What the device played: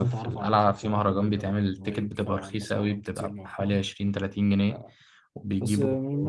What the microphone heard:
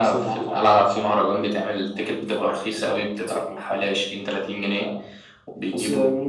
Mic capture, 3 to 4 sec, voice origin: echo only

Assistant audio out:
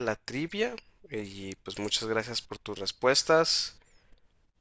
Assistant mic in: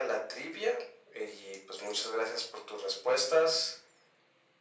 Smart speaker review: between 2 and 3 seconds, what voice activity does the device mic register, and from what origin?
echo only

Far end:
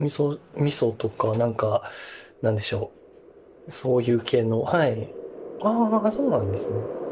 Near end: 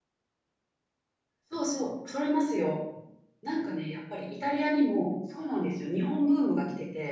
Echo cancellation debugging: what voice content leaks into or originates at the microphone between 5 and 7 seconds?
user only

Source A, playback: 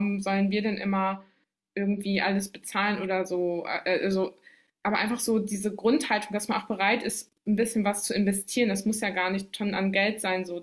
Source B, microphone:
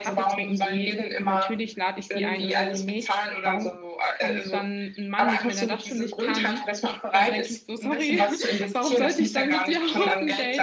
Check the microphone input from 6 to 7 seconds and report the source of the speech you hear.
both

